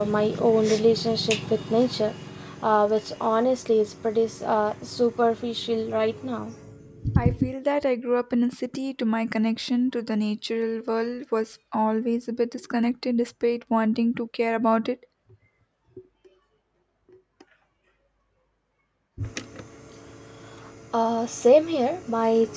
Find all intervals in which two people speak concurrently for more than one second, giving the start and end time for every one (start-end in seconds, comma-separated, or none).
none